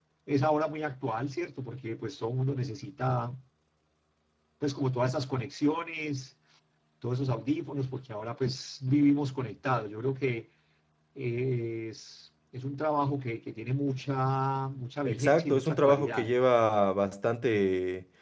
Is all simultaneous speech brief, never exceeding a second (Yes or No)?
No